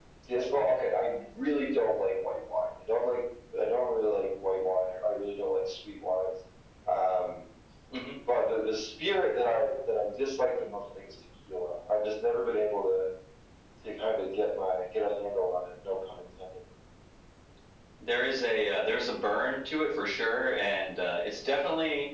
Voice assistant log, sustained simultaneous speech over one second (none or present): none